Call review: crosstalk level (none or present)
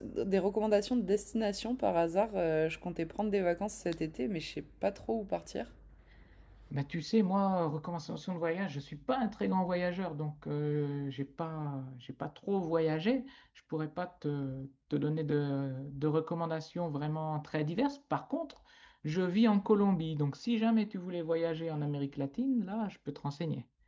none